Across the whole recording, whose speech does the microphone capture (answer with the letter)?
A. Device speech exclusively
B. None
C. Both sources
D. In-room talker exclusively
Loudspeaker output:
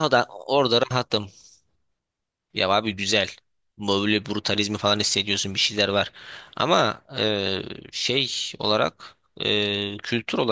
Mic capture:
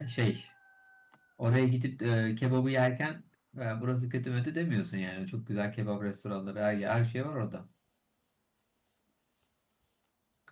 D